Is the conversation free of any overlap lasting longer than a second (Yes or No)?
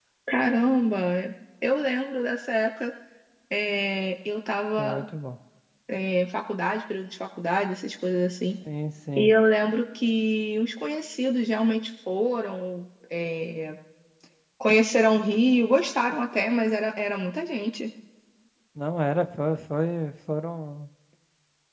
Yes